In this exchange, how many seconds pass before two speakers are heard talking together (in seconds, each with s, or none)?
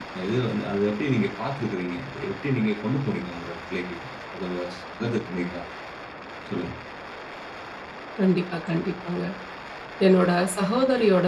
none